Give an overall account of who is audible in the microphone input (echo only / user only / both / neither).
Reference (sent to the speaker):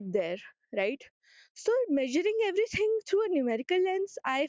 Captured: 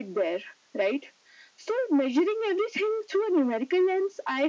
echo only